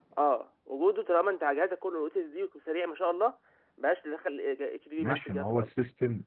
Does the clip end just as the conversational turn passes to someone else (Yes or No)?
Yes